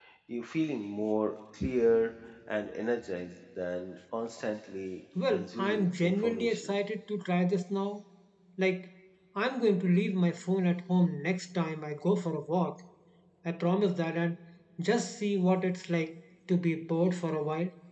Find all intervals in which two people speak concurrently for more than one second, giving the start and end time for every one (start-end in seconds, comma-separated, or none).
5.3-6.7